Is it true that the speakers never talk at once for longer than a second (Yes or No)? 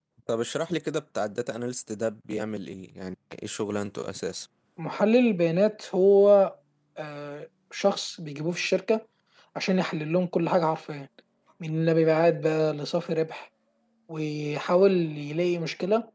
Yes